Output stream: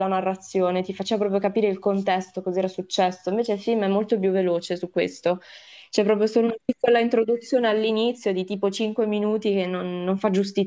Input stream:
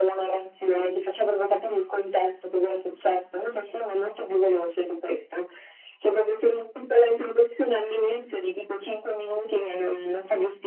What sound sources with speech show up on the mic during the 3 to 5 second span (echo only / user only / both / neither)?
echo only